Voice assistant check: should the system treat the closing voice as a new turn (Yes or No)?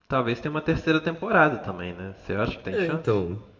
Yes